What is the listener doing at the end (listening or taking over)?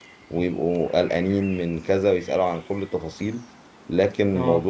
listening